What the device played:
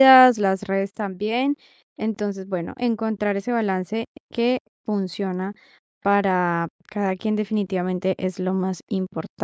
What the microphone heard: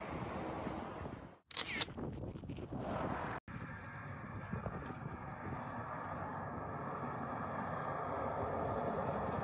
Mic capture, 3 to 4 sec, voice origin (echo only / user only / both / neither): neither